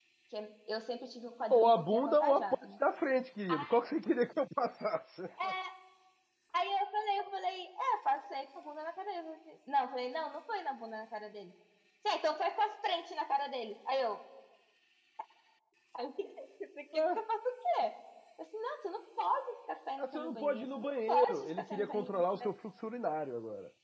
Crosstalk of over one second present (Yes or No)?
Yes